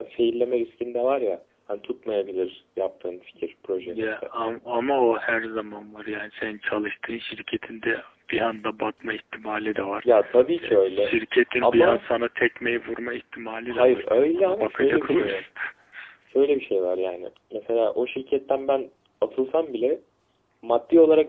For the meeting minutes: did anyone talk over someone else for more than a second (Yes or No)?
Yes